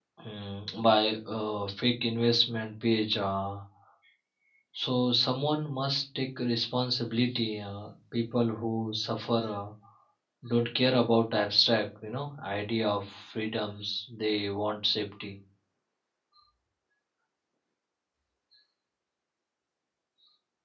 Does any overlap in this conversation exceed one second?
No

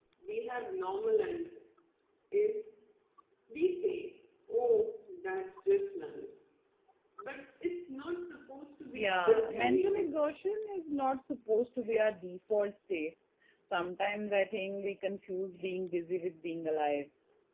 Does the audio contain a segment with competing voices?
Yes, from 8.9 s

